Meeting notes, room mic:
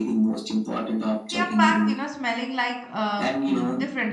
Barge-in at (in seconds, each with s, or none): 1.3 s